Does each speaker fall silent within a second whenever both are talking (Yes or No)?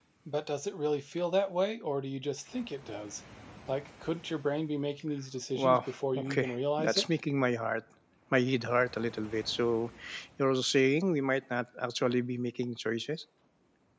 No